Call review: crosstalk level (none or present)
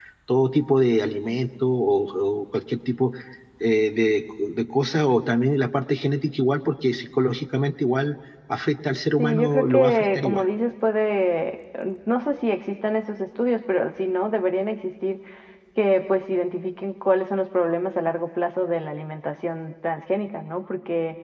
present